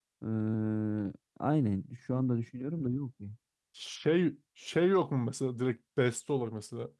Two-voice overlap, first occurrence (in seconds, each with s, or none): none